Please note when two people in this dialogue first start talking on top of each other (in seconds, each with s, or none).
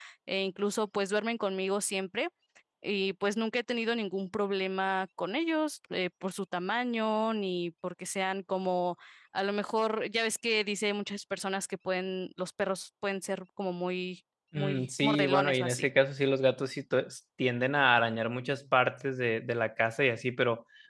14.5 s